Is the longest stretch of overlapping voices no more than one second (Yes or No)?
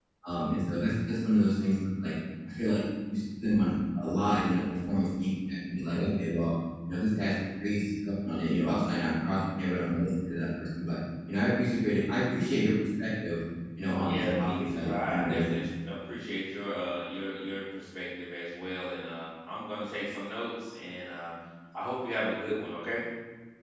No